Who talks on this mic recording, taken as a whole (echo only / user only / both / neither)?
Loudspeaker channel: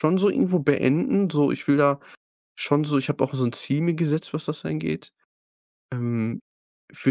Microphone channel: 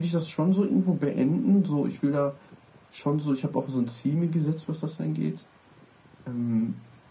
echo only